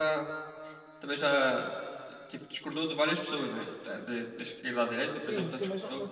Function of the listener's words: taking over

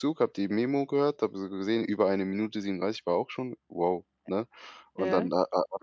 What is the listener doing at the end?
listening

